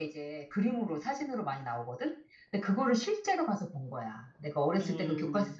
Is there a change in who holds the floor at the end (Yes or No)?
No